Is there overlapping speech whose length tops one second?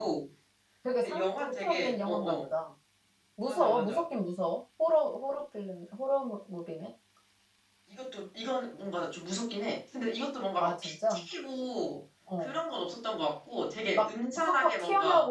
Yes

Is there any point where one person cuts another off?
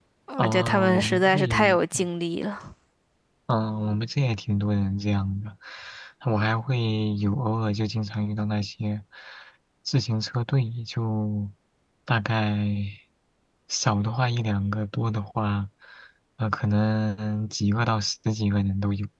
Yes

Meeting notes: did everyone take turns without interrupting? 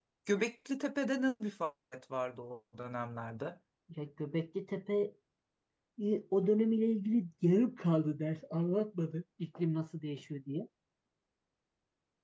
Yes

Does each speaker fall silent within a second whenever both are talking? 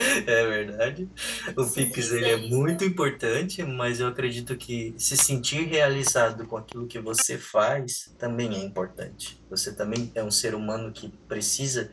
No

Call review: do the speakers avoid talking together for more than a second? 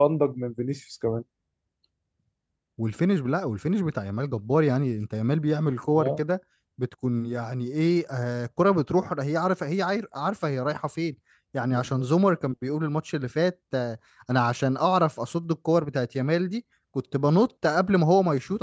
Yes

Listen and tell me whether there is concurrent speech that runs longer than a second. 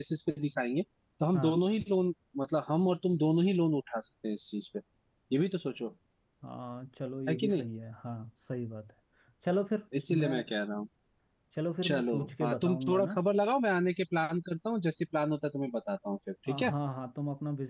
Yes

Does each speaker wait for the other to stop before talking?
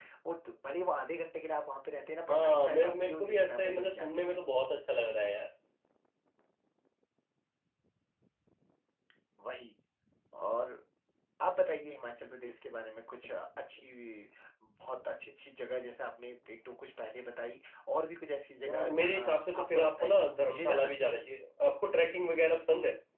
No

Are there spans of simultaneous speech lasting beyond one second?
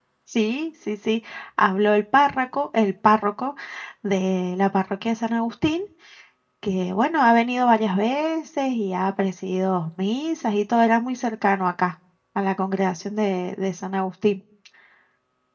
No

